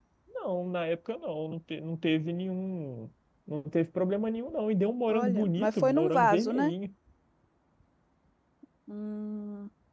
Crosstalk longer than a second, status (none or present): present